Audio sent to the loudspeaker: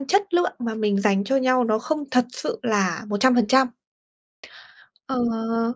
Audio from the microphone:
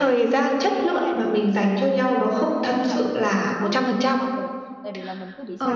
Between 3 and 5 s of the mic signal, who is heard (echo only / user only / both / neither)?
both